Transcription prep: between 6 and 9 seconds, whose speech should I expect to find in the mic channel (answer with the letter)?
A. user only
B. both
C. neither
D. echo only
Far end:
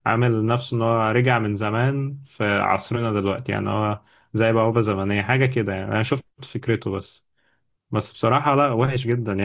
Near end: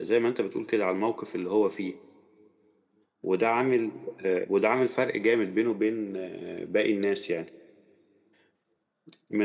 A